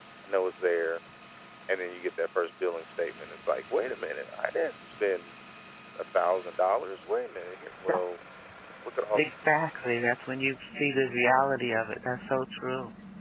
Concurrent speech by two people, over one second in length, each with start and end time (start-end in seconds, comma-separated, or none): none